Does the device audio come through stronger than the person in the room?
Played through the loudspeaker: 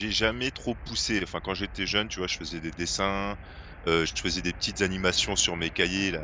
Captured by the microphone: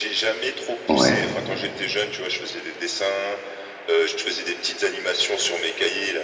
No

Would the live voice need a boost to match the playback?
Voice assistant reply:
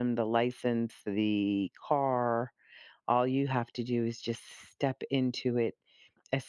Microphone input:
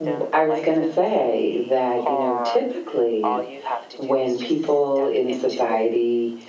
No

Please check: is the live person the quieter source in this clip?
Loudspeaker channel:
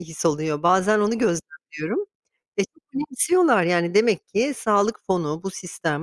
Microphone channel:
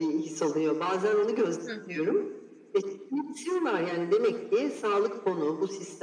Yes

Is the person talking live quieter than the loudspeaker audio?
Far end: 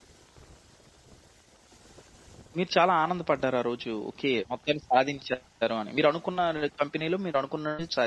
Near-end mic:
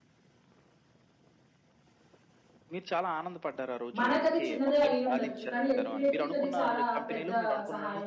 No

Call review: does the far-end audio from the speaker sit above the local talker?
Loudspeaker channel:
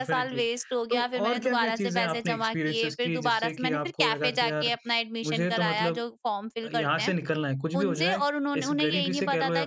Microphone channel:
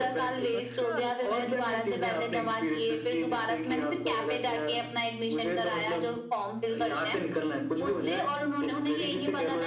Yes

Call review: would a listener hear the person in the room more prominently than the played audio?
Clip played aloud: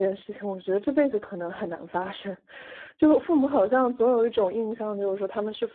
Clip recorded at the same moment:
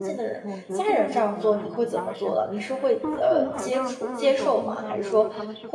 Yes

